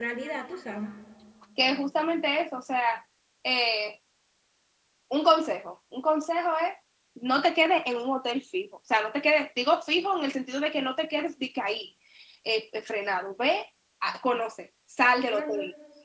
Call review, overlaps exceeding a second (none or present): none